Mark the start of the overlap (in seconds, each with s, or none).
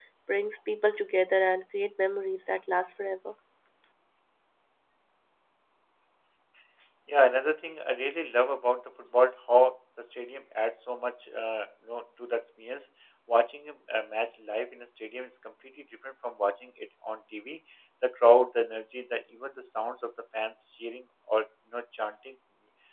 none